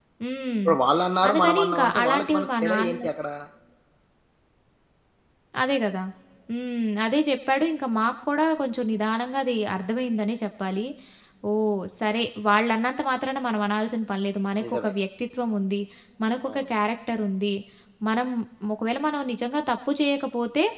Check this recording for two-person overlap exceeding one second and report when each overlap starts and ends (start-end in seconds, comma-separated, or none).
1.3-3.0